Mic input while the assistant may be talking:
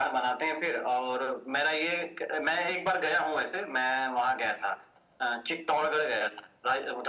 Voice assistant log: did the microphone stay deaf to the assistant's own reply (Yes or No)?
No